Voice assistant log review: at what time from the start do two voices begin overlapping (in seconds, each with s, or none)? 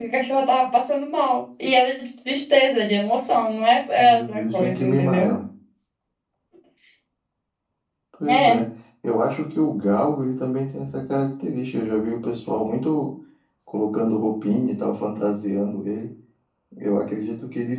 4.0 s